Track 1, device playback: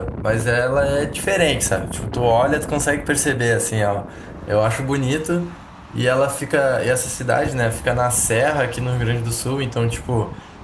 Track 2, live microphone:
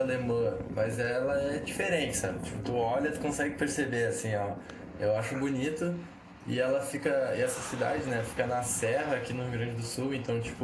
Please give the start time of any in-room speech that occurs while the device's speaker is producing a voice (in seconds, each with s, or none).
none